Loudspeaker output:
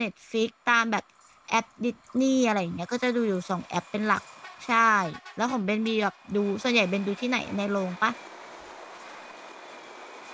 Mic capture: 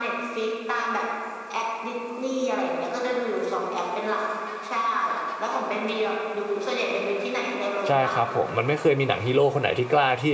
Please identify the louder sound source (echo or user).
user